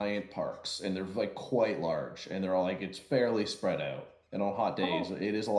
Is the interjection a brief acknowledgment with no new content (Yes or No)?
Yes